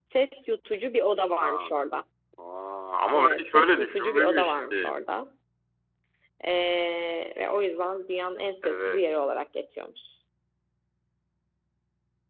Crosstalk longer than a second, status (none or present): present